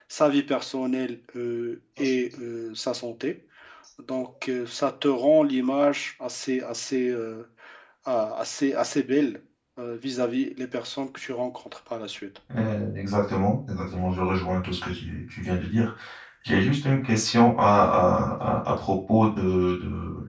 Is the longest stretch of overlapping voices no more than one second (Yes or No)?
Yes